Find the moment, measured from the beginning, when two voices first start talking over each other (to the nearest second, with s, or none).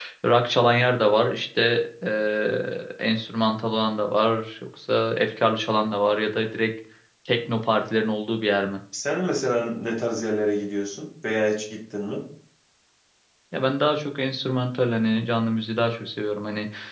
none